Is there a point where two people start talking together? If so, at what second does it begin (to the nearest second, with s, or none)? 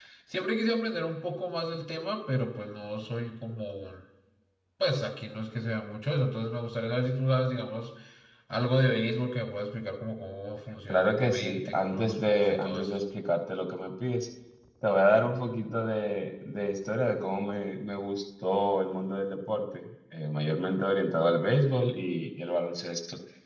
11 s